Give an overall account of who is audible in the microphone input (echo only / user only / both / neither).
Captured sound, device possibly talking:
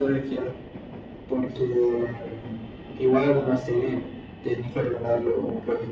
echo only